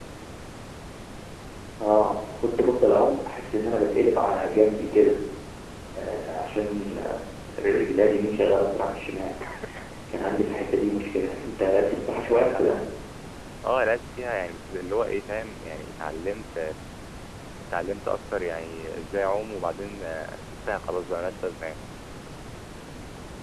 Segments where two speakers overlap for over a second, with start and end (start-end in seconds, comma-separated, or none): 11.2-12.7